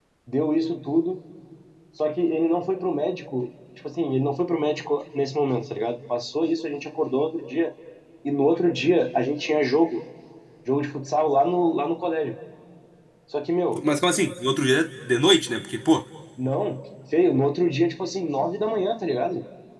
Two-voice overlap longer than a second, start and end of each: none

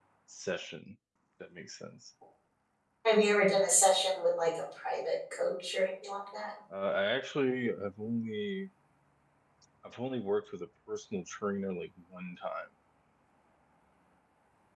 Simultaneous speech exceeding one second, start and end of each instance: none

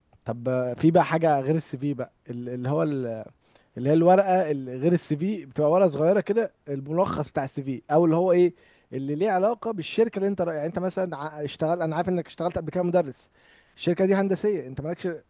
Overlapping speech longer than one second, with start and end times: none

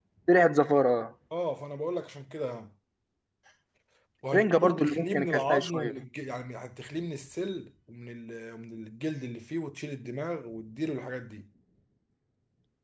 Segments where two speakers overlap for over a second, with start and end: 4.3-6.0

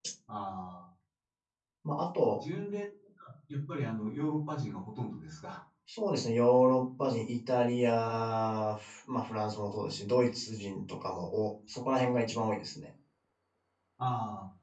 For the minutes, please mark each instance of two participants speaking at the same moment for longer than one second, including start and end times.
none

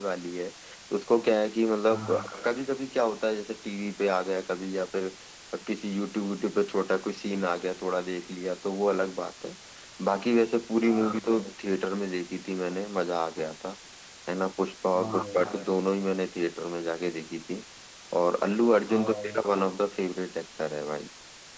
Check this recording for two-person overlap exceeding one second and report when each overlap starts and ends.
none

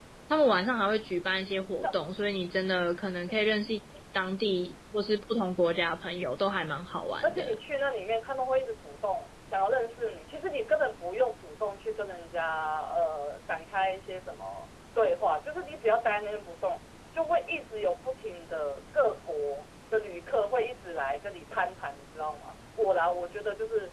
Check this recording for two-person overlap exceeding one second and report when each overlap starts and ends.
none

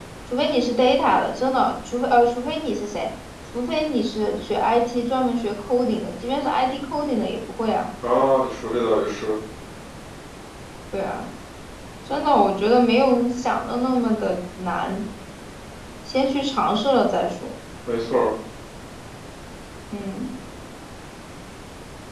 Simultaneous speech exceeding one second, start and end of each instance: none

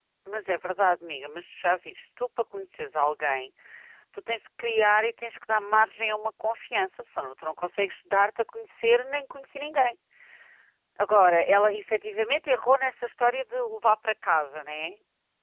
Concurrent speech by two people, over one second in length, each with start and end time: none

